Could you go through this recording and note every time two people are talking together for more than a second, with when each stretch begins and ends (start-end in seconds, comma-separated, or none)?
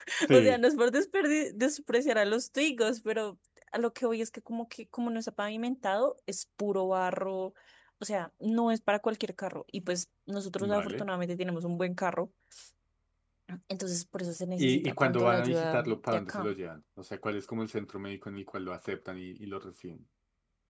14.6-16.6